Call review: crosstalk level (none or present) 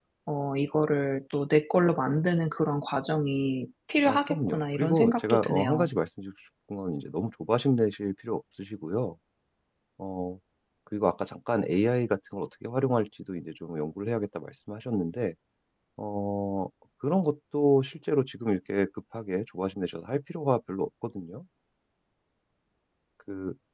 present